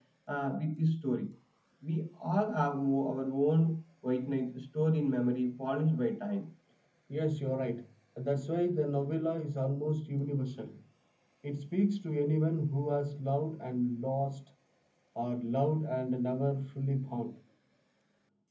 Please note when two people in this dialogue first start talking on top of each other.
none

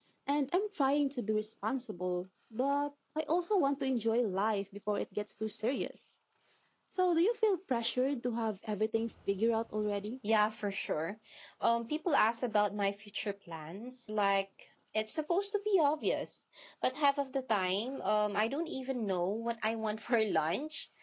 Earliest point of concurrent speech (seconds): none

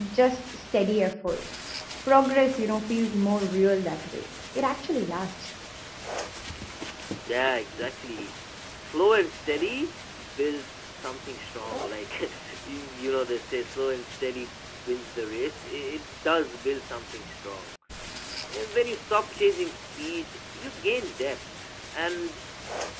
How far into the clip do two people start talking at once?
none

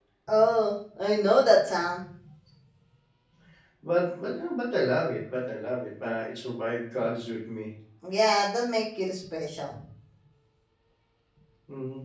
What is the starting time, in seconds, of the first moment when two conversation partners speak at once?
none

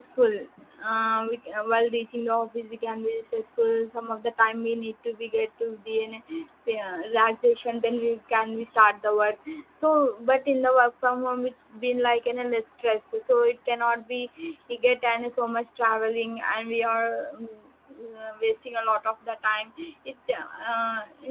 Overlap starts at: none

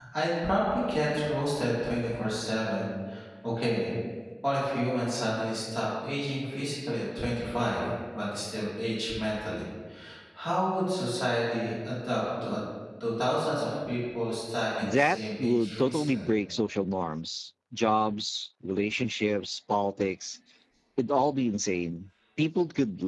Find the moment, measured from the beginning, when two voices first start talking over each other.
14.8 s

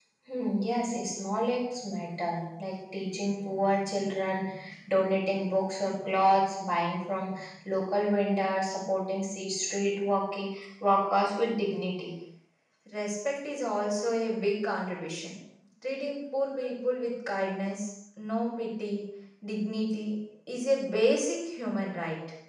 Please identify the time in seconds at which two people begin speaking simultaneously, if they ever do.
none

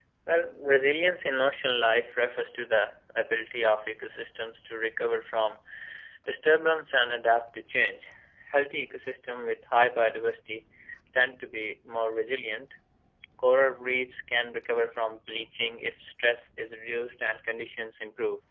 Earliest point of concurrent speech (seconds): none

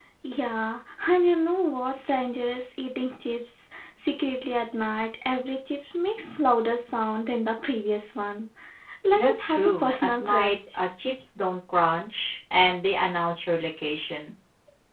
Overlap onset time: 9.2 s

